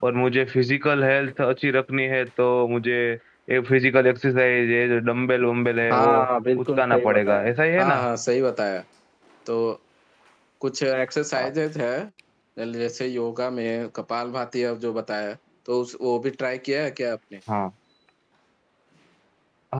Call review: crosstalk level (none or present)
present